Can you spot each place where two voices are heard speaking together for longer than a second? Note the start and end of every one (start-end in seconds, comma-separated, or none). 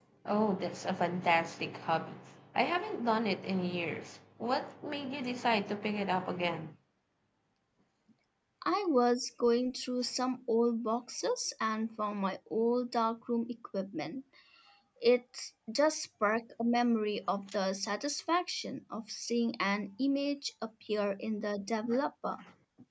none